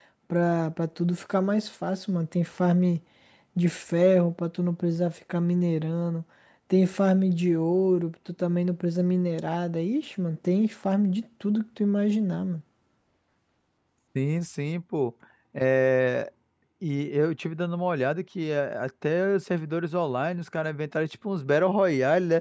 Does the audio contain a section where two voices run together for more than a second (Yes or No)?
No